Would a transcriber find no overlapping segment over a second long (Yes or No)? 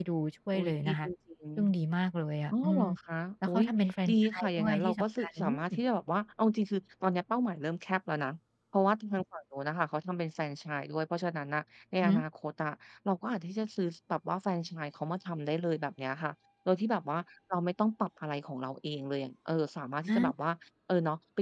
No